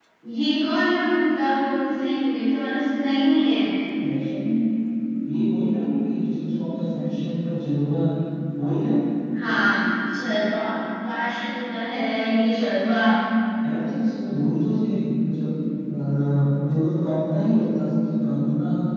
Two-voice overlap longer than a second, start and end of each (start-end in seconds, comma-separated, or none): none